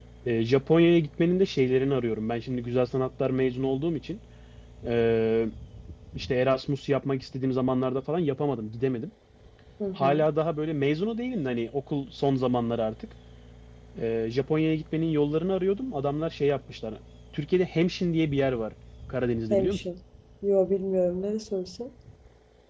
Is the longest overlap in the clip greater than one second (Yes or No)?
No